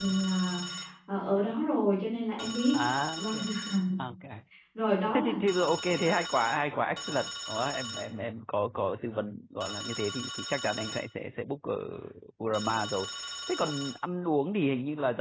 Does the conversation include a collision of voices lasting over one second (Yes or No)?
No